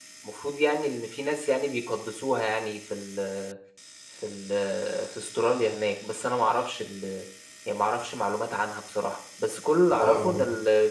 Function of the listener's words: listening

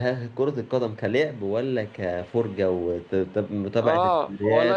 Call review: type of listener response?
taking over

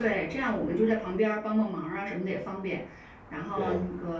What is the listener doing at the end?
listening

